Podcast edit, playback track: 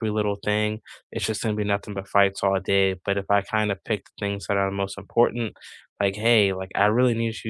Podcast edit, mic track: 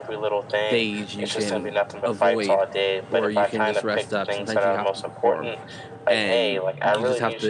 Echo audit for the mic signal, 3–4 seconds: both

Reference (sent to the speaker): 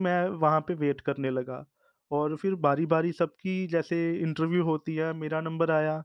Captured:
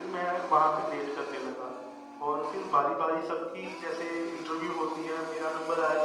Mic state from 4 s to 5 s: echo only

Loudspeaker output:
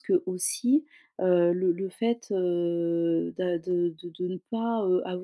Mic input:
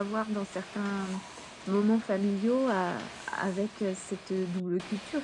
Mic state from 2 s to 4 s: user only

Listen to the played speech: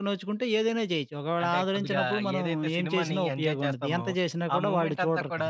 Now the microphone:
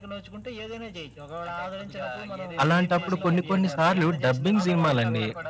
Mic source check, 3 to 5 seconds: both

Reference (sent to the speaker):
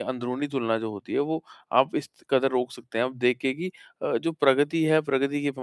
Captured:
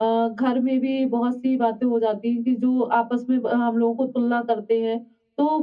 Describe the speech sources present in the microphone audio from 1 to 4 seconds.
user only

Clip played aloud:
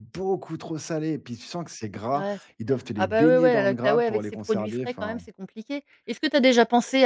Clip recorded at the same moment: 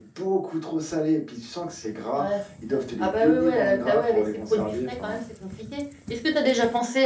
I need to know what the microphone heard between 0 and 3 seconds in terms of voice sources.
echo only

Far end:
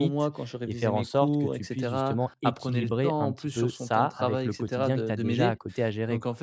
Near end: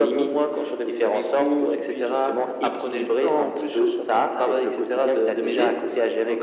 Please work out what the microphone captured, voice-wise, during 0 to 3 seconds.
echo only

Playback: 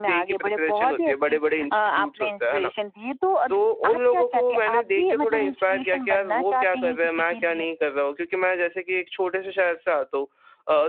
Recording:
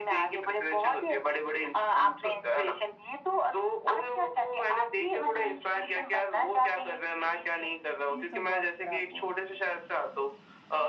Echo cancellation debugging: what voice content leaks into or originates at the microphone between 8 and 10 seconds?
both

